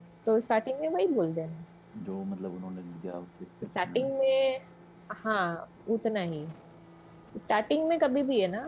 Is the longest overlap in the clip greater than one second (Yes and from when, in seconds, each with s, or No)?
No